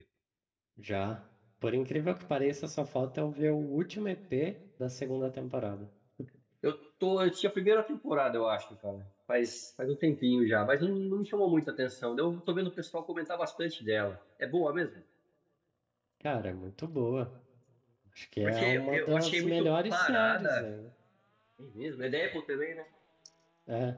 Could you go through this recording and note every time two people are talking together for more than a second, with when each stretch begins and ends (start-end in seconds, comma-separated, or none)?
18.4-20.6